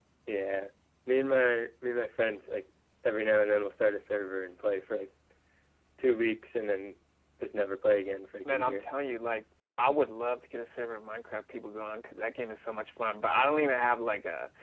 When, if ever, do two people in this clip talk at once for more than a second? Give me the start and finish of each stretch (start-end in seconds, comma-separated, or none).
none